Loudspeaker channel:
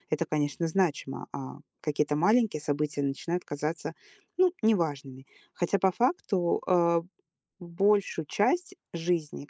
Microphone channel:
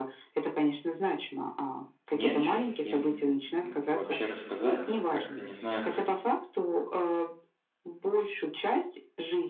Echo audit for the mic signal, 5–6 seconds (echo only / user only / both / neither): both